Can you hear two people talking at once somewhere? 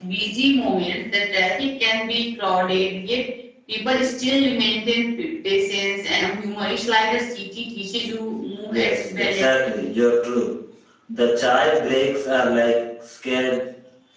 Yes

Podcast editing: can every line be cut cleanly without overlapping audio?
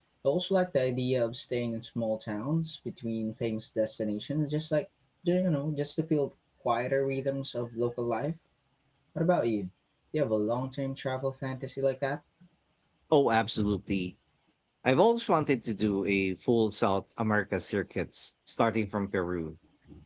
Yes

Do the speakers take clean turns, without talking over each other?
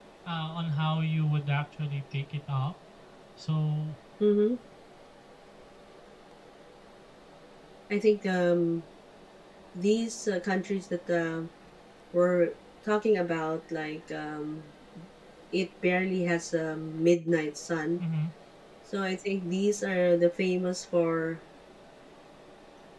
Yes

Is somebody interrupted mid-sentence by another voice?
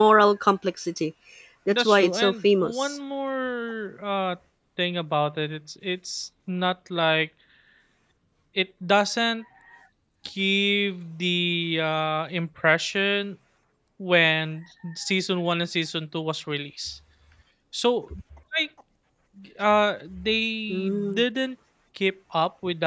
Yes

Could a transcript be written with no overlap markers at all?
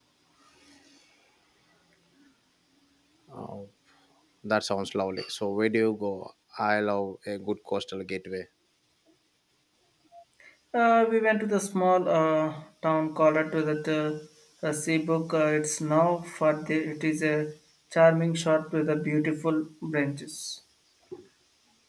Yes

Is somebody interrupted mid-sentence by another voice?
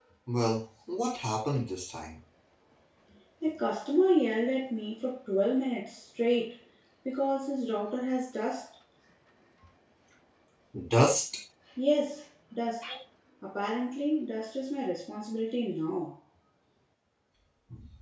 No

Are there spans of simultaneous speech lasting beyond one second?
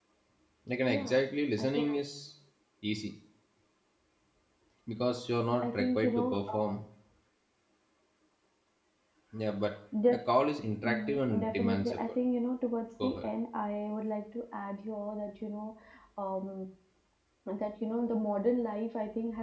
Yes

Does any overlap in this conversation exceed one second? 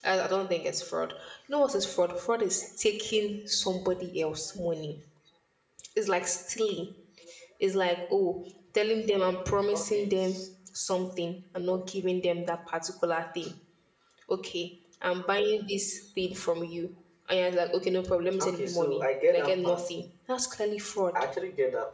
Yes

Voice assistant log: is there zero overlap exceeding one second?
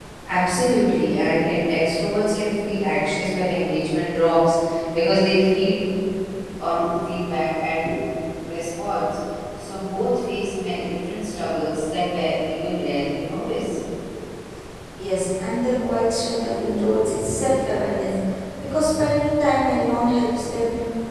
Yes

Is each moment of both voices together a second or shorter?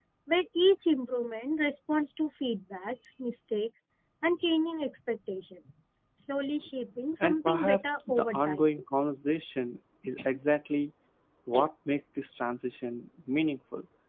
No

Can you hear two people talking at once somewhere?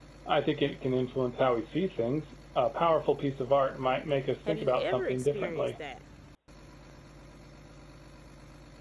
Yes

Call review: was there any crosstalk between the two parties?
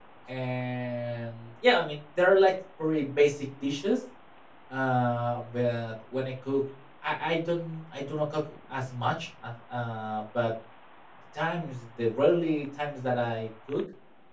No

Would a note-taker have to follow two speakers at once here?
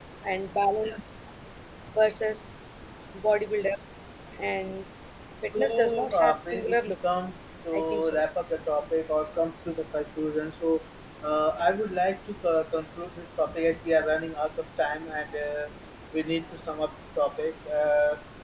Yes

